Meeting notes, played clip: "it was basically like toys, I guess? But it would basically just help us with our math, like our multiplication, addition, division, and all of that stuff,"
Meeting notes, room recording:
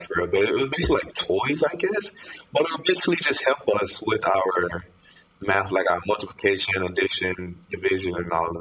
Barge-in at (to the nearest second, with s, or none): none